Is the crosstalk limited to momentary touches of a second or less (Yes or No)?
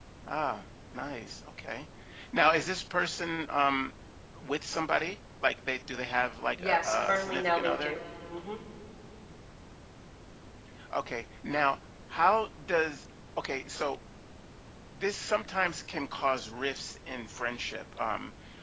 No